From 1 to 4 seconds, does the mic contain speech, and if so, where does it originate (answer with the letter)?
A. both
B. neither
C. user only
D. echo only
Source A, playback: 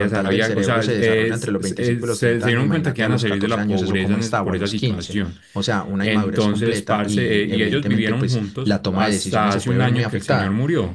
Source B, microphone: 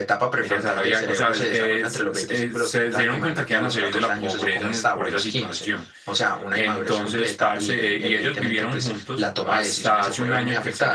D